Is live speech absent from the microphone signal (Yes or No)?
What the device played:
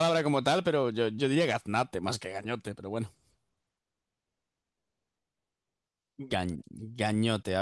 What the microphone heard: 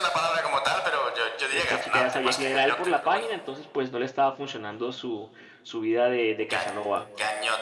No